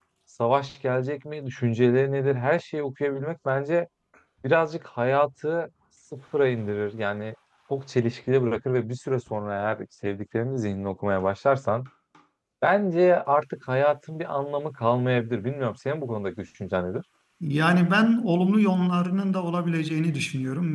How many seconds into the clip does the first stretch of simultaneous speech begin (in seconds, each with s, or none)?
none